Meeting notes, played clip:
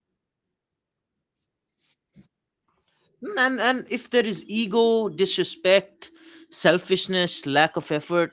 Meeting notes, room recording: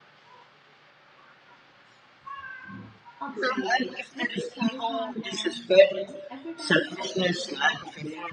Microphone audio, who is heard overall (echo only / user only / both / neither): both